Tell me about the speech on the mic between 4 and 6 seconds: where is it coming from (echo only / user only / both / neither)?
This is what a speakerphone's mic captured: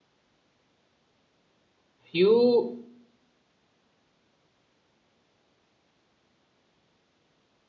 neither